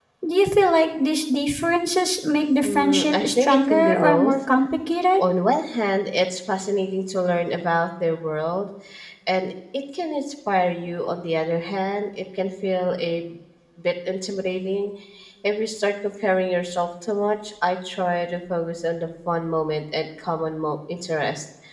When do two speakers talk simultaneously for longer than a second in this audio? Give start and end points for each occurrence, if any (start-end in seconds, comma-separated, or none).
2.6-4.3